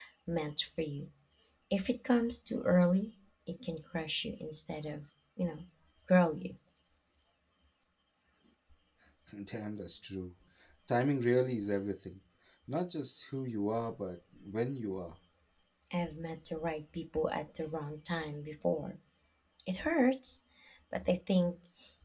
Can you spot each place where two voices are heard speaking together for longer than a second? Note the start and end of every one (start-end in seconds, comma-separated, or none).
none